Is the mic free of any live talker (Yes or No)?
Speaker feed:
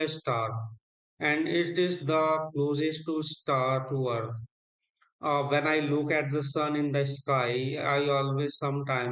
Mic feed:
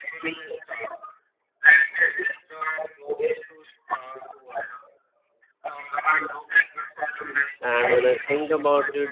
No